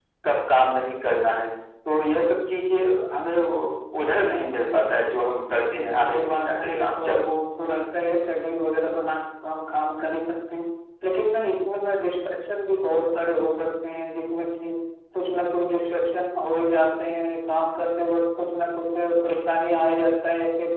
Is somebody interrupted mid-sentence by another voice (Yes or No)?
Yes